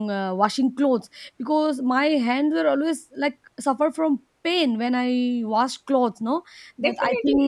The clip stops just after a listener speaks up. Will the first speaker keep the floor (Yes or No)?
No